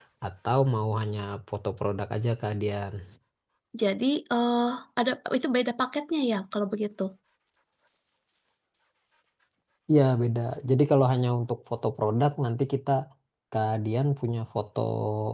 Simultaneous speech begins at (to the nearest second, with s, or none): none